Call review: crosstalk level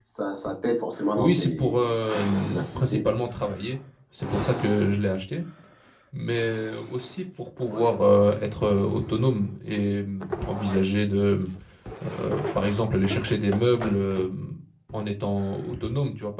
present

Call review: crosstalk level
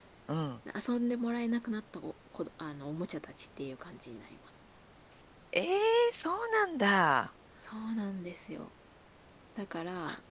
none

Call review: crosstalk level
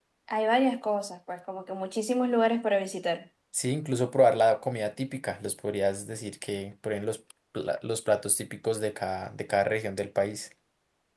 none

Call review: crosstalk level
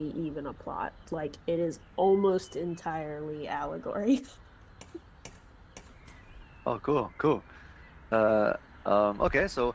none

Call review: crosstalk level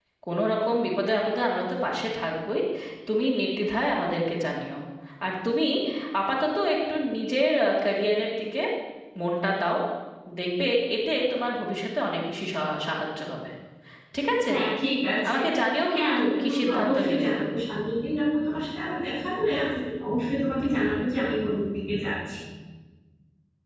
present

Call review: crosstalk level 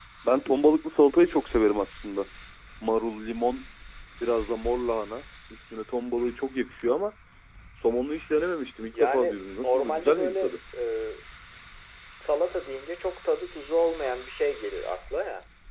present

